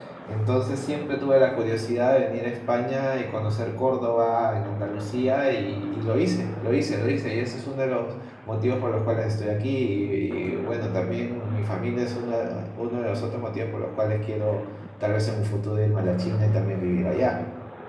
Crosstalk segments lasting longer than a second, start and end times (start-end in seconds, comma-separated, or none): none